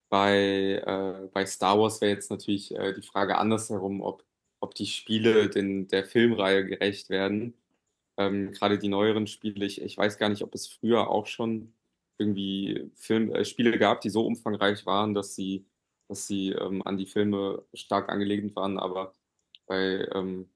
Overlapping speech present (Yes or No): No